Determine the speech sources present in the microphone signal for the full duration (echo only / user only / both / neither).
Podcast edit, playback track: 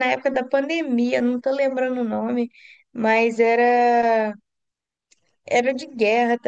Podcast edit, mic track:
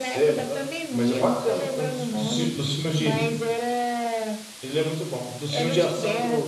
both